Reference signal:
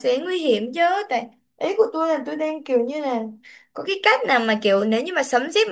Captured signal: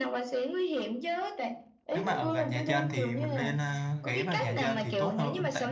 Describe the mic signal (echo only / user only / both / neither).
both